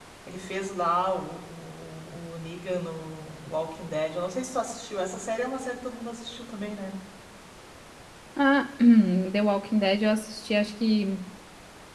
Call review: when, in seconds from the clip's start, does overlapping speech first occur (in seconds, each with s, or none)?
none